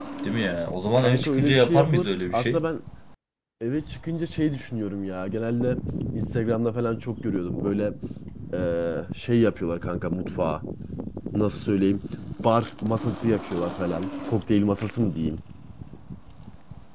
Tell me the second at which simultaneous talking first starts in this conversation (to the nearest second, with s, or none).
1 s